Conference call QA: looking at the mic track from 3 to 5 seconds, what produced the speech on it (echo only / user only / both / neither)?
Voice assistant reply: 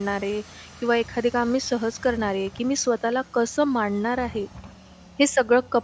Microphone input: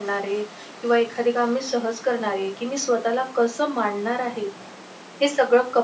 echo only